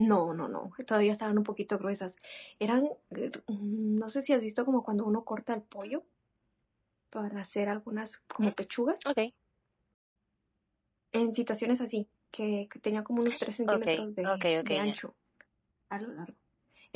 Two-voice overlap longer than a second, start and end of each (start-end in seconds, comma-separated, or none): 13.7-15.0